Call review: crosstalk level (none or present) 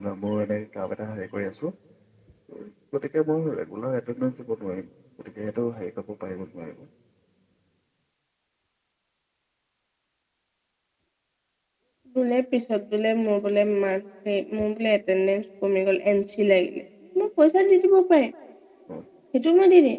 none